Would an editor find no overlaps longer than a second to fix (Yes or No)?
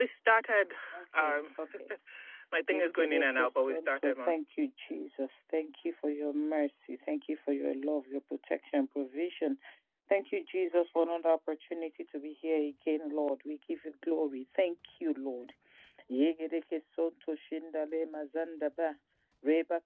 No